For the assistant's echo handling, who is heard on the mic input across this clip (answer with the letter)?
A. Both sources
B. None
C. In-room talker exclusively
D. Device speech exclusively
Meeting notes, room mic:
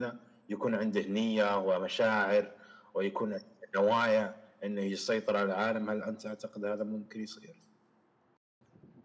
D